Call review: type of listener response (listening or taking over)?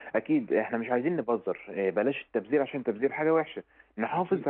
listening